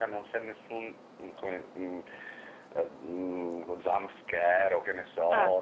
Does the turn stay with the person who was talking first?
Yes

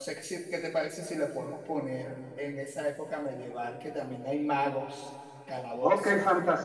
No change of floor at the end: No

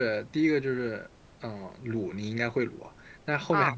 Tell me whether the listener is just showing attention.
Yes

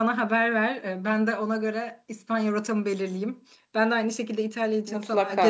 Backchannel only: Yes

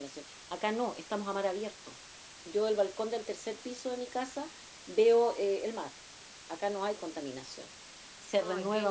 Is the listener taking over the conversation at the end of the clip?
Yes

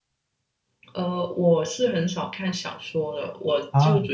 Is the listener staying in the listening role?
Yes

